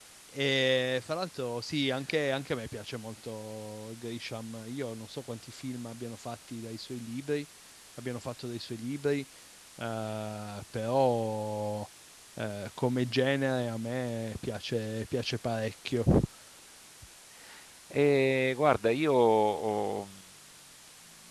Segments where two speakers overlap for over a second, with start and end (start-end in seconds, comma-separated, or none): none